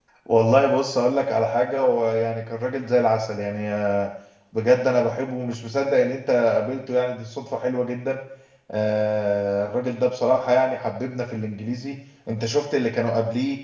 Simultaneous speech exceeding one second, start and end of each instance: none

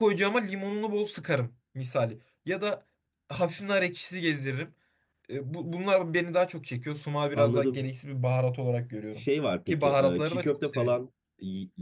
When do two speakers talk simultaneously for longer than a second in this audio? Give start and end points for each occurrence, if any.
9.7-11.0

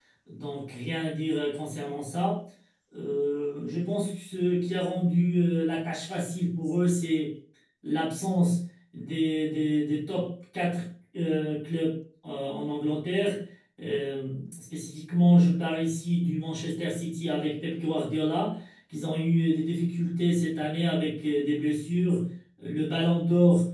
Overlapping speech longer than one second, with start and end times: none

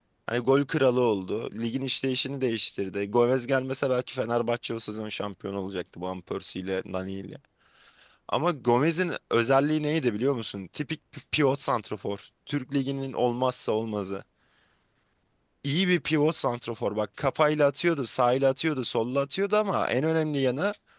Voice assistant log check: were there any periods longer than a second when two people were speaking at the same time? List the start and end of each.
none

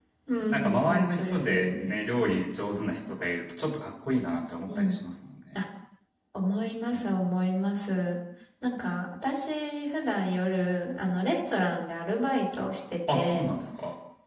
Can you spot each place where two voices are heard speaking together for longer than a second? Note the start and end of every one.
0.5-1.9

